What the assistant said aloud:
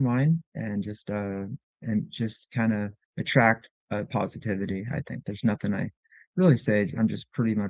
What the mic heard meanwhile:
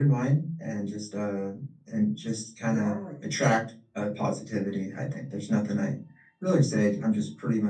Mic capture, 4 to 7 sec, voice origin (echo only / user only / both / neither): echo only